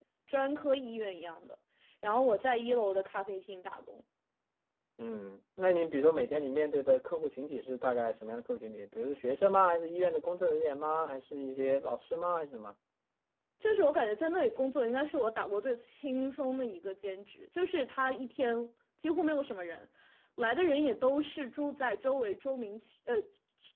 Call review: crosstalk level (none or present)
none